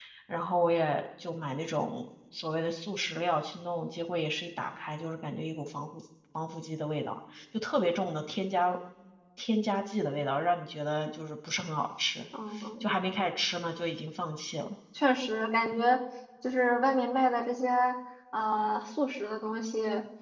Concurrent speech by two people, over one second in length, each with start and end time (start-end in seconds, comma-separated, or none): none